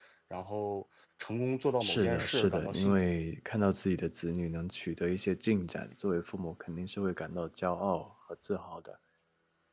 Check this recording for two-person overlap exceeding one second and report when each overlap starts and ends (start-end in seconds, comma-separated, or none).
1.8-3.1